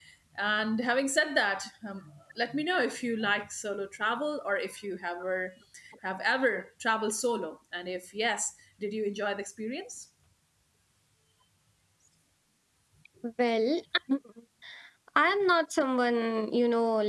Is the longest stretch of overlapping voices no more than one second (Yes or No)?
Yes